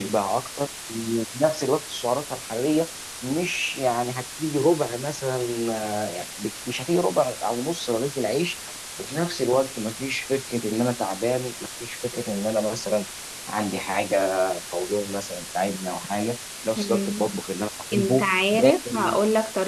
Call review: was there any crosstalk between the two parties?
Yes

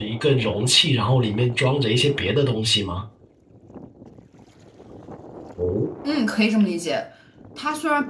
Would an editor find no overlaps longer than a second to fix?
Yes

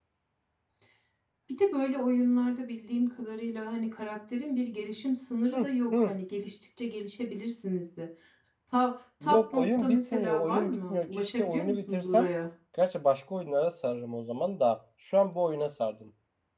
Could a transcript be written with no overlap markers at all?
No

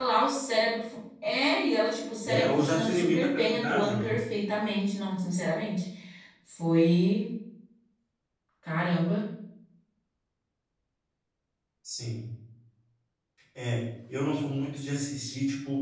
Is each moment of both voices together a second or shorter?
No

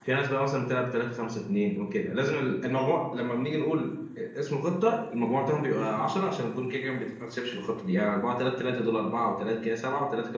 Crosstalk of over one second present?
No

